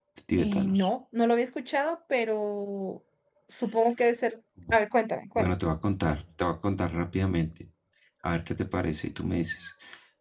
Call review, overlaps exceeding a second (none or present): none